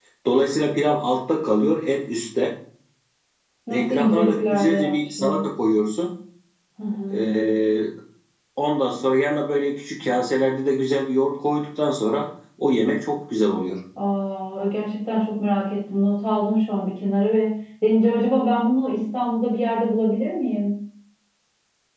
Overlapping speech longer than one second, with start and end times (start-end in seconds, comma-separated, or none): 3.7-5.4